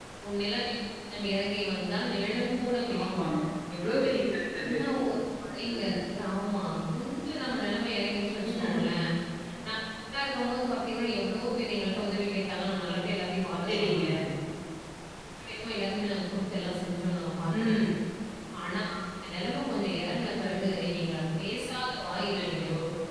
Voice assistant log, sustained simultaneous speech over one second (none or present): none